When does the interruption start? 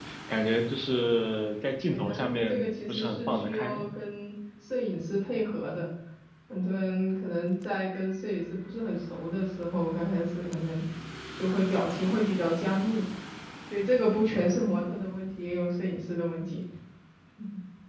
2 s

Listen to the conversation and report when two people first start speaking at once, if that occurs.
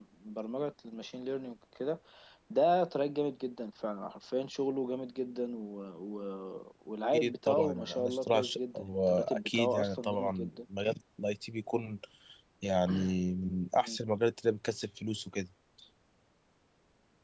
7 s

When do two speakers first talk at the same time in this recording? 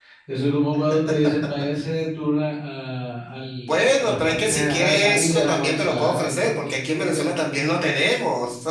4 s

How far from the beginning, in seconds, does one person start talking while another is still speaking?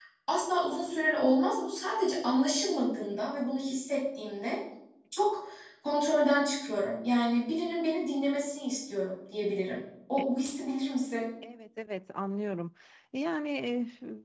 none

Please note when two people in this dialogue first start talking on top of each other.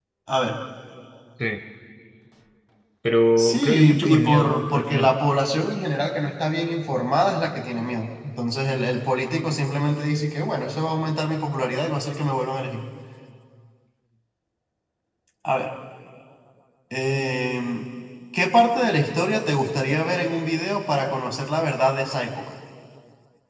3 s

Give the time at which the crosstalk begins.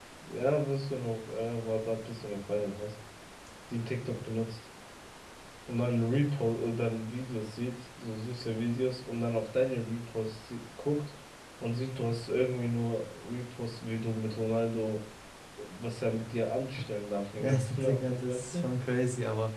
17 s

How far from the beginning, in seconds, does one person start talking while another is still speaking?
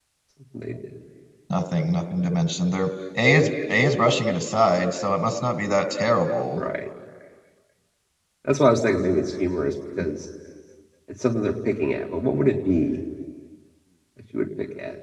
none

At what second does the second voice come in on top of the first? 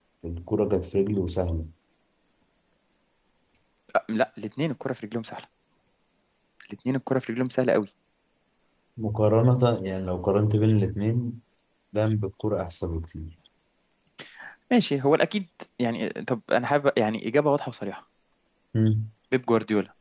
none

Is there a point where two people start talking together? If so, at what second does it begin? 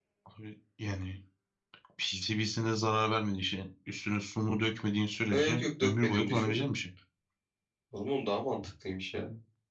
5 s

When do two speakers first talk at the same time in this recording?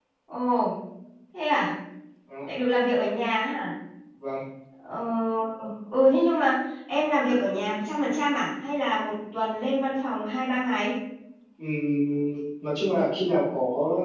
none

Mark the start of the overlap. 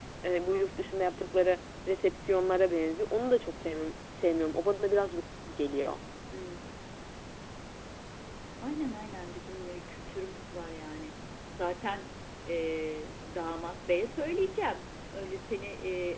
none

